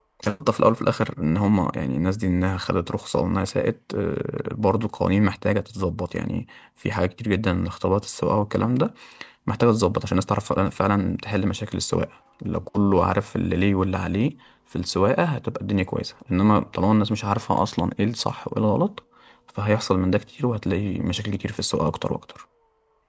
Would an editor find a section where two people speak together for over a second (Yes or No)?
No